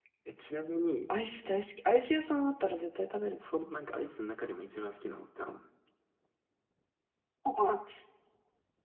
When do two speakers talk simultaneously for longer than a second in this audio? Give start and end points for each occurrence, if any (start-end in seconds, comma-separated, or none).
none